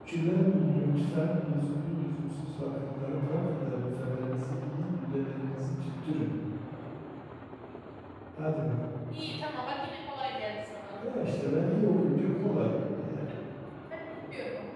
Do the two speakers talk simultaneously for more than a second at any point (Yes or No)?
No